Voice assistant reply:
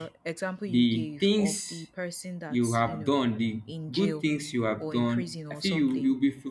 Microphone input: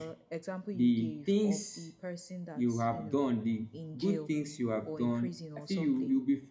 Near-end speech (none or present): none